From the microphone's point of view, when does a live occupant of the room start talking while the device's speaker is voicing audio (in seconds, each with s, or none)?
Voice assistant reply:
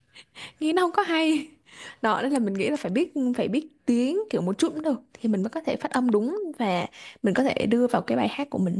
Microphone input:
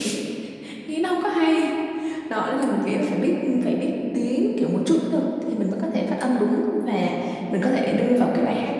none